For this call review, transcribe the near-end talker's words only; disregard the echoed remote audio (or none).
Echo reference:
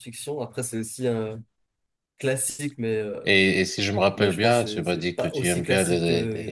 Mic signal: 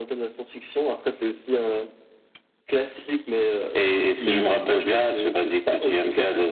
Hmm,